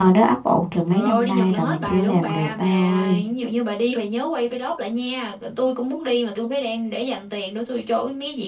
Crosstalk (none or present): present